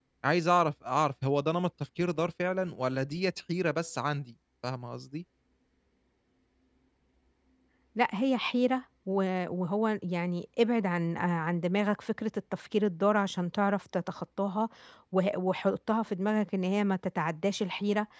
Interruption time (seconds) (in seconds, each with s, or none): none